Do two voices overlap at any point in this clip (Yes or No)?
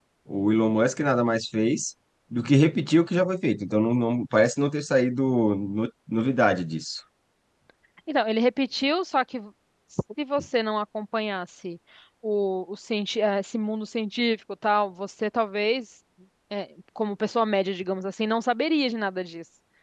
No